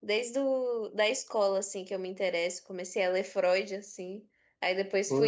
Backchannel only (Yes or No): Yes